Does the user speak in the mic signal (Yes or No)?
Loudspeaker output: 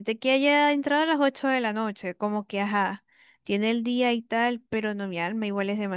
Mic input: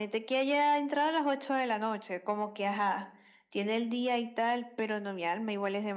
No